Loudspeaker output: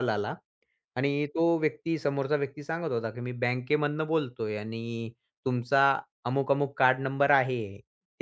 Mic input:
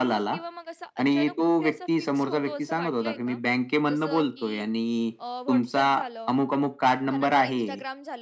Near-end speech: present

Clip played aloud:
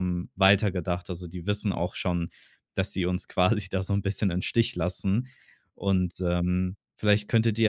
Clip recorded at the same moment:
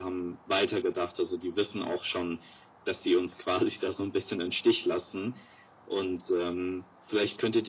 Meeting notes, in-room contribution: none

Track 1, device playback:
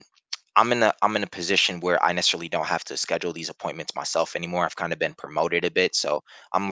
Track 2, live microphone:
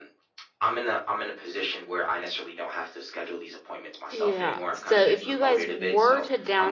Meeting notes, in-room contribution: present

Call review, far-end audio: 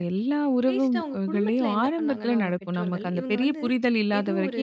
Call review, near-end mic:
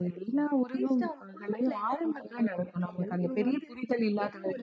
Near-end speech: none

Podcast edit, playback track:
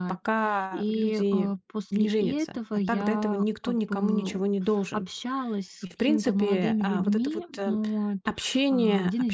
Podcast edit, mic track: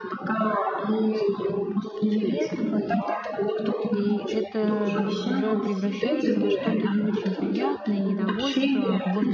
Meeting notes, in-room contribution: present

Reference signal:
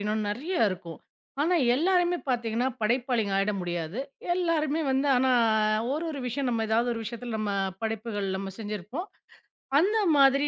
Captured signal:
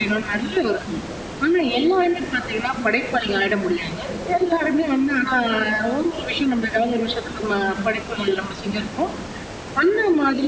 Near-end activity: none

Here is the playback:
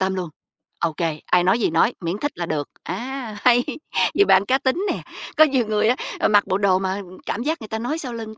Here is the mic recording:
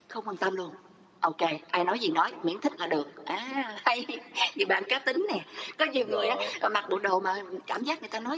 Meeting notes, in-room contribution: present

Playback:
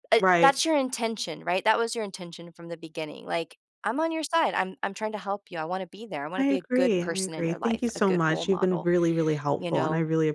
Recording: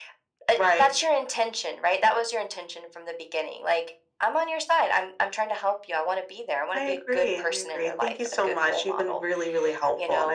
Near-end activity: none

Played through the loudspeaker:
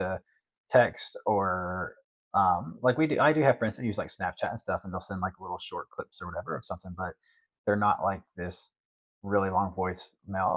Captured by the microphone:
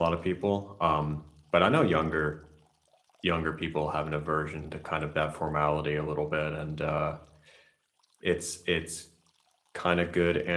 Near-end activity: present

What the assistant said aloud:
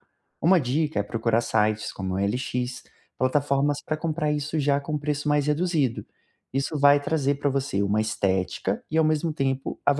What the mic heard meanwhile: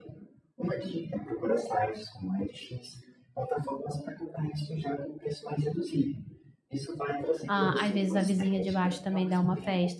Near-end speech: present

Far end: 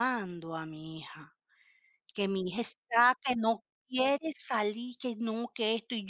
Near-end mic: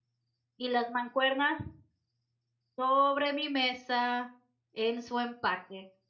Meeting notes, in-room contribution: present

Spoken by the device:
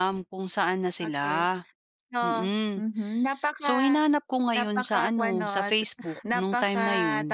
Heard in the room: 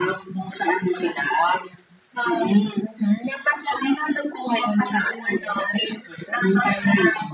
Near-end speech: none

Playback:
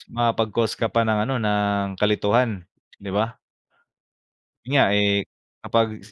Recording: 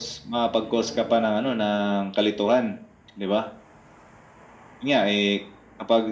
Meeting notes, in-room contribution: present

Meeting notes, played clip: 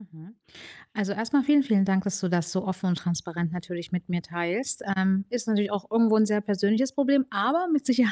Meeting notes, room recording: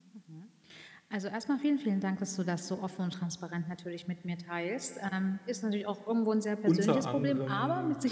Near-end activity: present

